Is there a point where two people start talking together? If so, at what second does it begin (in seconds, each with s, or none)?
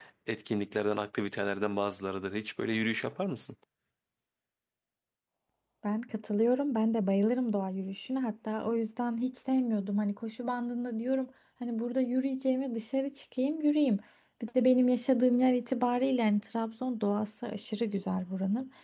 none